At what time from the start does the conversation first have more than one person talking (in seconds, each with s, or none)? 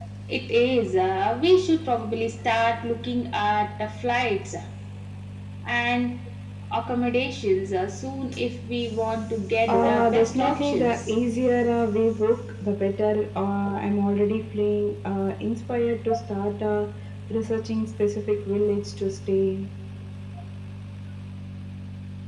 9.7 s